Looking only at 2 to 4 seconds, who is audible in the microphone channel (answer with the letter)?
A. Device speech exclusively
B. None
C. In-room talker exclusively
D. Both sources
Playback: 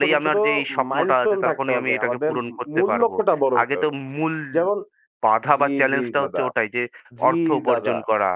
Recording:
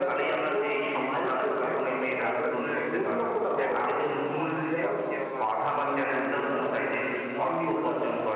D